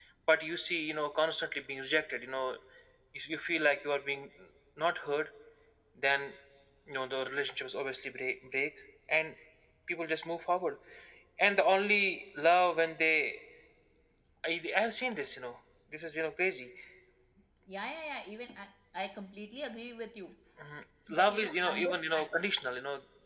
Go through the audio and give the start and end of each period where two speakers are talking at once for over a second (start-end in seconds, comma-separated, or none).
21.2-22.4